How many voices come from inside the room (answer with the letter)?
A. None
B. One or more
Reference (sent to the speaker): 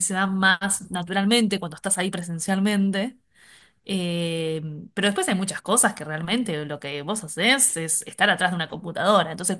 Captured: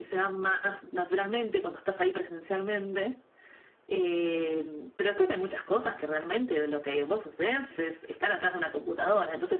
A